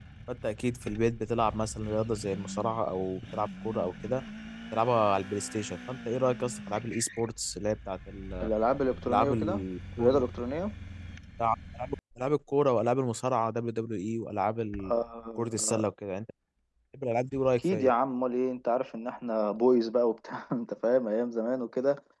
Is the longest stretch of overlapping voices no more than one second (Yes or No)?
Yes